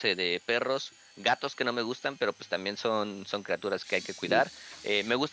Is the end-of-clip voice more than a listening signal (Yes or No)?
No